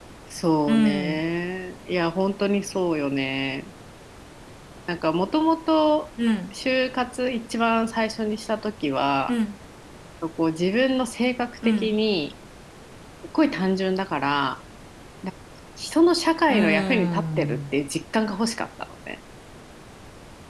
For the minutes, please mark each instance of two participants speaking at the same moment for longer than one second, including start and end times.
16.5-17.7

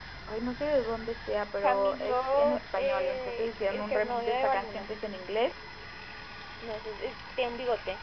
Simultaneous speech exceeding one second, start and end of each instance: 1.6-4.9

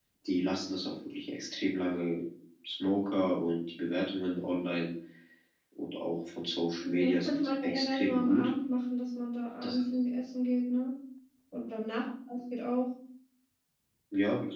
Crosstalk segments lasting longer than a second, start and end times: 6.8-8.5

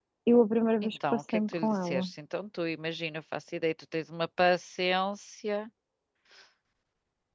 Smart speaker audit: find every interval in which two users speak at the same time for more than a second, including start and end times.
0.8-2.1

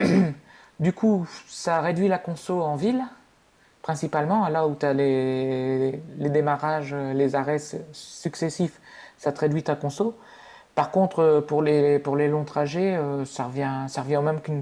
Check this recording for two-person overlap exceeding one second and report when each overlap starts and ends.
none

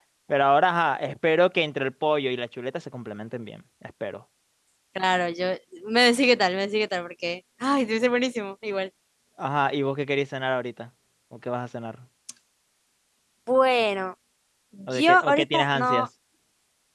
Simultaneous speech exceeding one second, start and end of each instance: 14.9-16.1

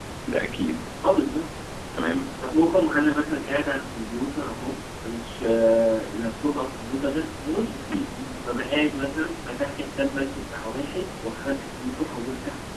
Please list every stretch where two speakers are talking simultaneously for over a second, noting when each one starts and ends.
none

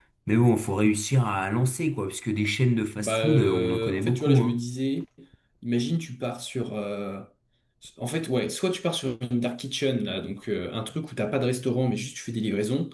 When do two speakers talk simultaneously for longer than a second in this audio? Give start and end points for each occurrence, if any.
3.0-4.6

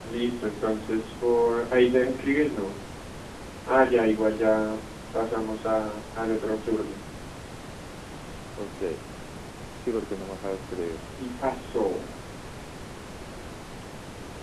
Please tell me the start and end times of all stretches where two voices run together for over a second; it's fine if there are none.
none

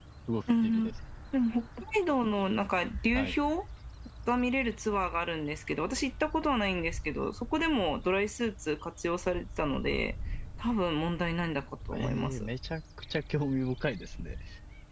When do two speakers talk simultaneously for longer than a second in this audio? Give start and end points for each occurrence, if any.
none

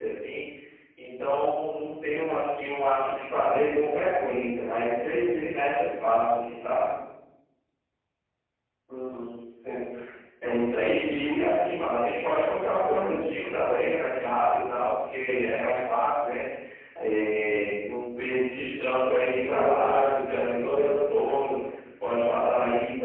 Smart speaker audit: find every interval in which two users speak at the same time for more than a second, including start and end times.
19.4-21.0

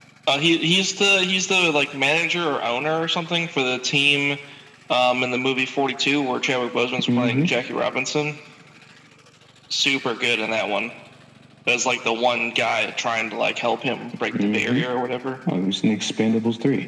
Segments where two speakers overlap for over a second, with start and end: none

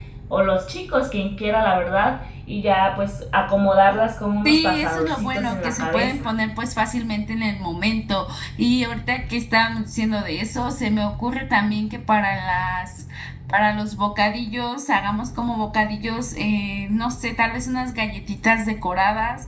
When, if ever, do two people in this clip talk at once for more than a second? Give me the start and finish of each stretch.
4.4-6.3

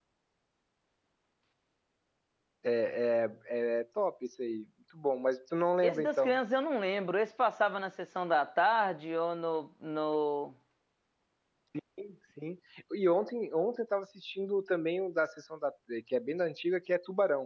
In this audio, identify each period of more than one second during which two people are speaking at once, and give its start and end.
none

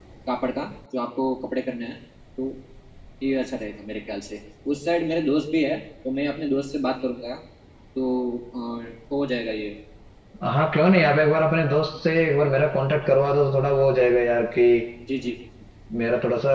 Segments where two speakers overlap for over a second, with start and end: none

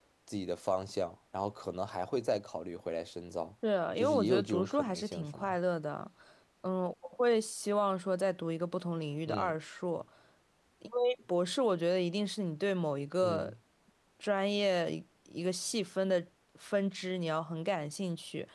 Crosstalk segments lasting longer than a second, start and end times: 4.0-5.6

